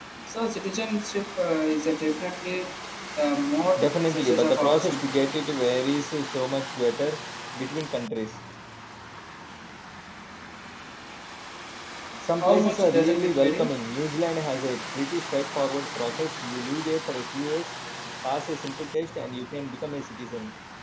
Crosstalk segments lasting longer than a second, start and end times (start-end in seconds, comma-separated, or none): 3.8-5.1, 12.4-13.7